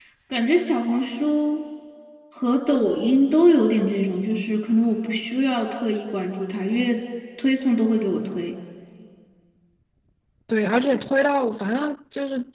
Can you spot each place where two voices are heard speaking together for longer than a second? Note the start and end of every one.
none

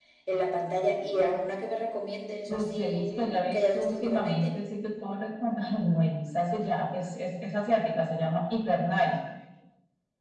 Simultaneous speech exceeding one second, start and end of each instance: 2.5-4.5

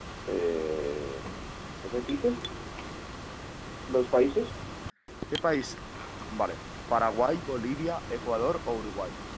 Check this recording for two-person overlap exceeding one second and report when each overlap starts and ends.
none

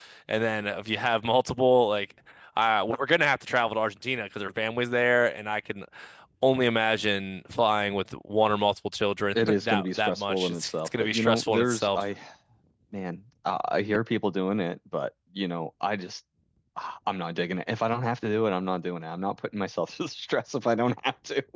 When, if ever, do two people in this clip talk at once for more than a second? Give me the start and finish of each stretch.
9.3-12.0

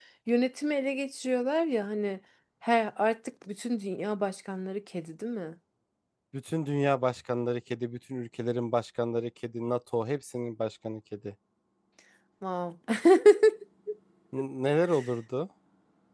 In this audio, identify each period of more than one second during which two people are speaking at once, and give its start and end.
none

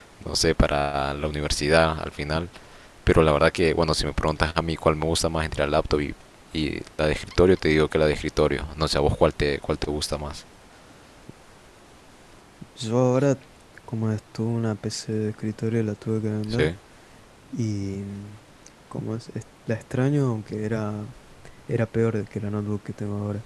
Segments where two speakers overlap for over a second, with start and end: none

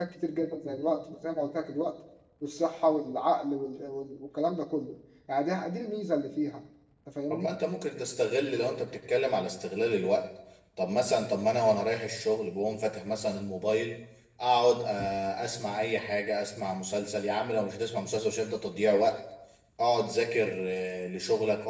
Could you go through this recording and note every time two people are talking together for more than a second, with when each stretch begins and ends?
none

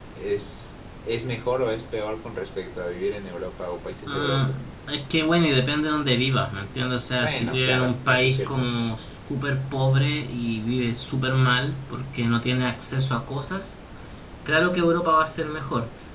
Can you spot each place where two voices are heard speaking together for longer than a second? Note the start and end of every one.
7.2-8.6

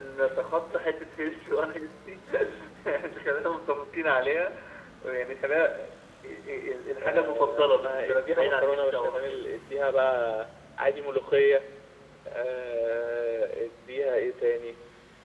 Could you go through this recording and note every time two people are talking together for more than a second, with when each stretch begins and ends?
7.0-9.5

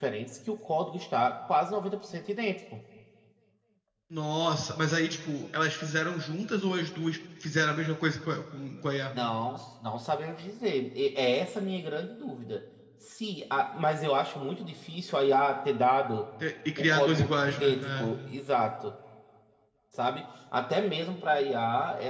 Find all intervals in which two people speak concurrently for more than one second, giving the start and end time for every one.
16.8-18.1

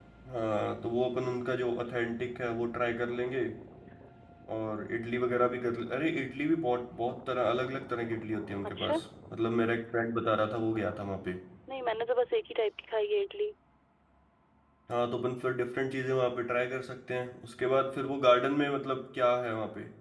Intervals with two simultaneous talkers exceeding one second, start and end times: none

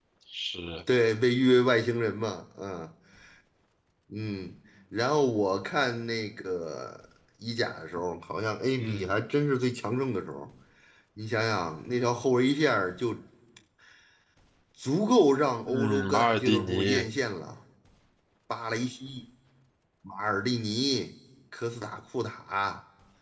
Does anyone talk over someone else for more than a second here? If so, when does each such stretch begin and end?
15.6-17.0

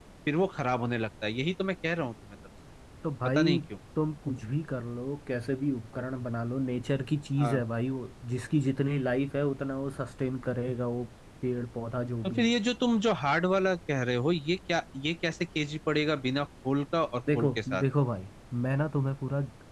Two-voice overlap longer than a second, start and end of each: none

